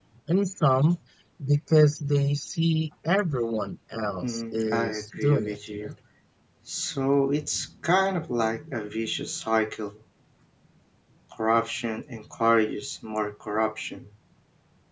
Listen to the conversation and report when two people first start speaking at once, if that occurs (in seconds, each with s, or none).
4.2 s